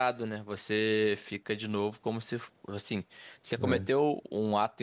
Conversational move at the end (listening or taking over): listening